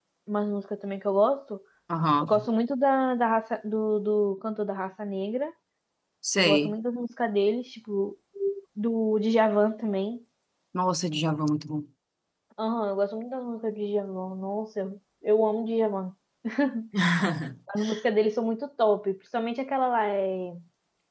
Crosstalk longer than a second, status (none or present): none